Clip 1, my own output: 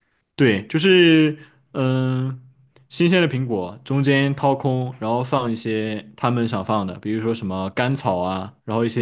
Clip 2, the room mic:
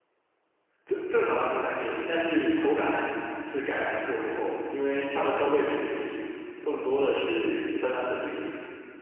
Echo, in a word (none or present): none